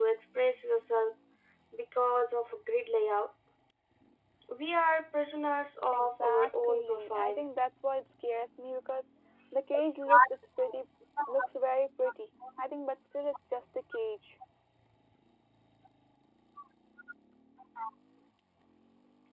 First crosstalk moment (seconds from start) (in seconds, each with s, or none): 5.9 s